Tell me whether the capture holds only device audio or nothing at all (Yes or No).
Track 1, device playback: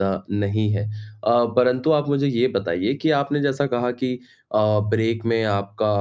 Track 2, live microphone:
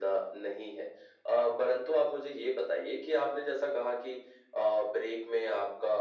Yes